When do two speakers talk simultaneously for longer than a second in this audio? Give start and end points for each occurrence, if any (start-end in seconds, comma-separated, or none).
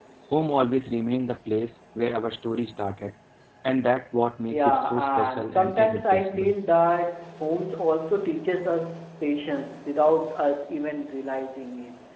4.5-6.5